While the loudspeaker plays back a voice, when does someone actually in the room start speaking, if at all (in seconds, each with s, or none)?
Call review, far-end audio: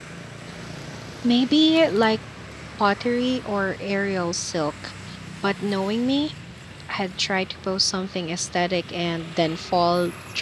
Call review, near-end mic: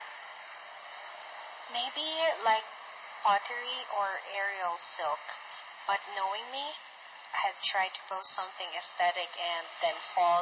none